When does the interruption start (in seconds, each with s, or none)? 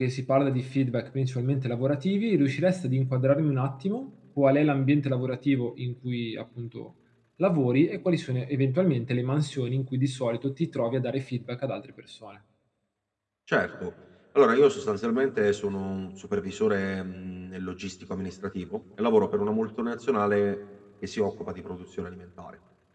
none